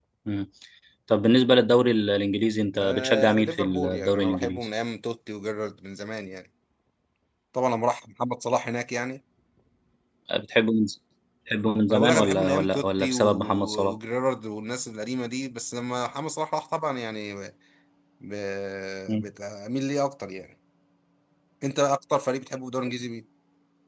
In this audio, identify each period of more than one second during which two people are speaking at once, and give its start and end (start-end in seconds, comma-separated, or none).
2.8-4.7, 11.9-13.9